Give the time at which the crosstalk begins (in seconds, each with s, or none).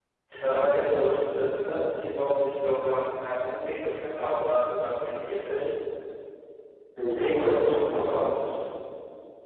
7.1 s